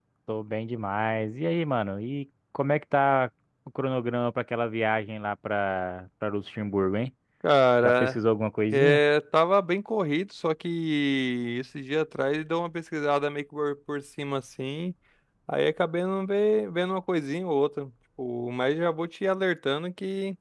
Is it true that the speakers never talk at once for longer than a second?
Yes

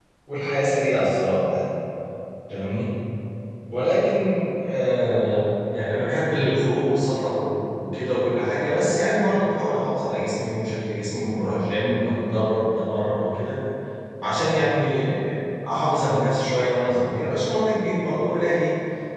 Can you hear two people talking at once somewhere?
No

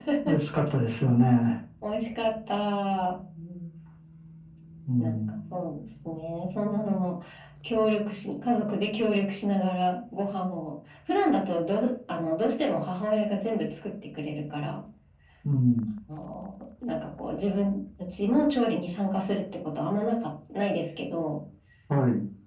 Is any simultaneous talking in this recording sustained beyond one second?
No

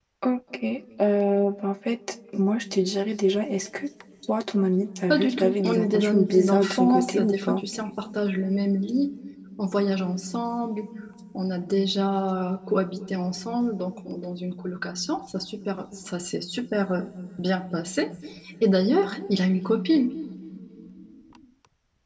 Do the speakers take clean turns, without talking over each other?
No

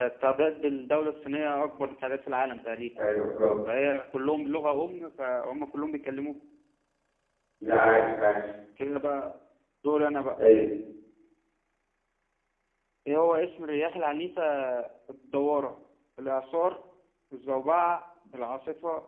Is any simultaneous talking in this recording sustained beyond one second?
No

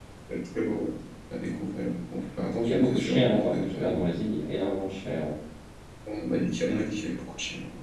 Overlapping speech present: Yes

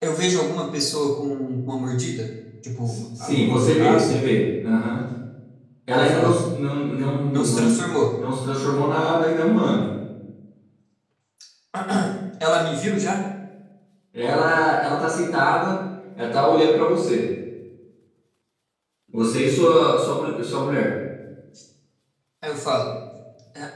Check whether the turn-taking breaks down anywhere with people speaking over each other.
Yes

